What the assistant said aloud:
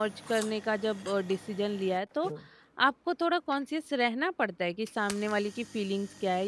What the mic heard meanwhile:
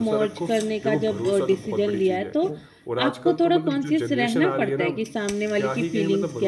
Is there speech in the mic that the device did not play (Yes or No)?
Yes